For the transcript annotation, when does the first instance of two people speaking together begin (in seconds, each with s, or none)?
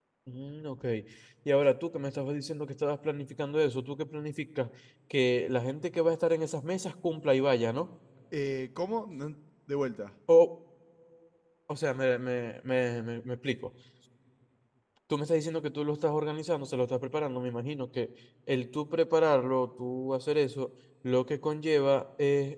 none